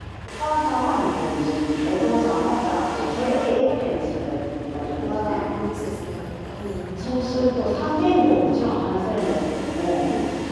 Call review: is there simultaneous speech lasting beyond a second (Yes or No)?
No